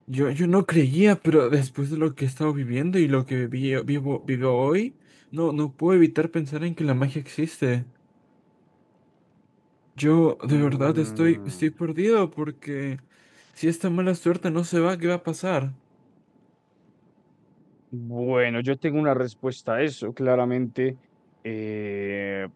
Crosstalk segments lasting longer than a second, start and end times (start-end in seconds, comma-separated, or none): 10.5-11.7